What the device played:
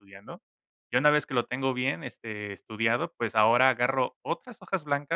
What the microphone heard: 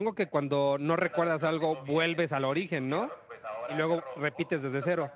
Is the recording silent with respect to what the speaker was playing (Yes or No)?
No